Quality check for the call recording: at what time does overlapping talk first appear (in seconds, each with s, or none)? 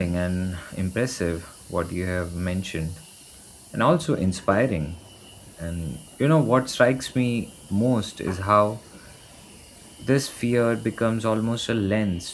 none